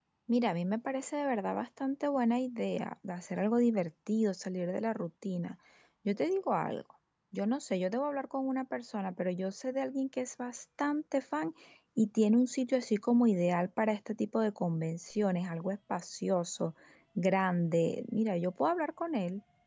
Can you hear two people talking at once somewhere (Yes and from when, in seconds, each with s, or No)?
No